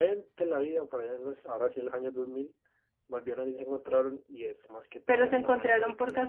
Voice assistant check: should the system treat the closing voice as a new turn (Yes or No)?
Yes